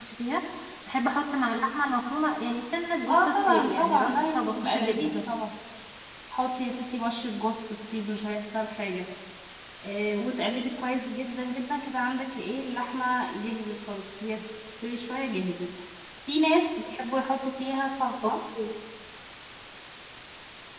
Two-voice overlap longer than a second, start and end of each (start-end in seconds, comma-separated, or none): 3.1-5.1